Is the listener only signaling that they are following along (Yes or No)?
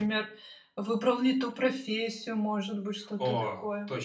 No